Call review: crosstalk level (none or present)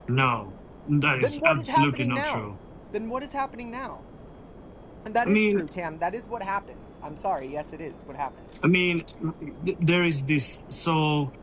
present